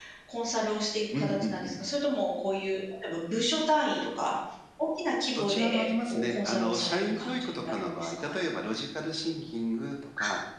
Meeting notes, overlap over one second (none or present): present